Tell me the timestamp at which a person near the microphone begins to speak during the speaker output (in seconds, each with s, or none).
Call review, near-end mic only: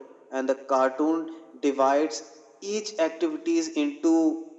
none